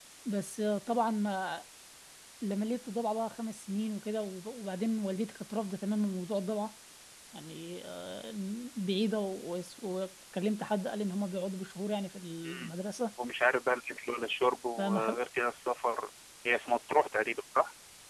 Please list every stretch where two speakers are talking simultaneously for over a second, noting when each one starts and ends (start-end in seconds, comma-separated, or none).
none